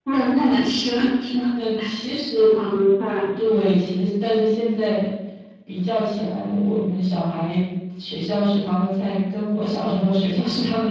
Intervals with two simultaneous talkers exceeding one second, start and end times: none

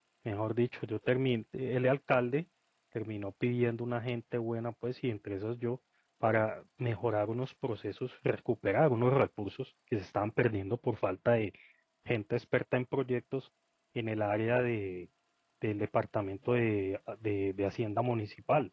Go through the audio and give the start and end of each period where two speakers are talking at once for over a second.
none

